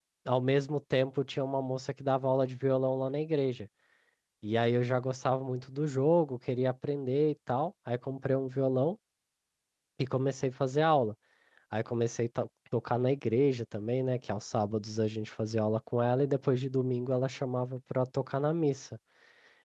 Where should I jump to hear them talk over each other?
none

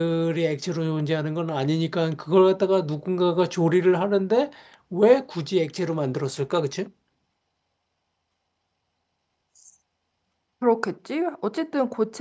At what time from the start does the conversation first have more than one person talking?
none

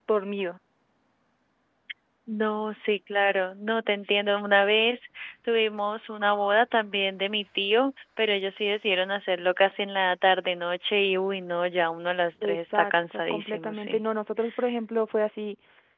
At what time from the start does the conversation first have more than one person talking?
12.4 s

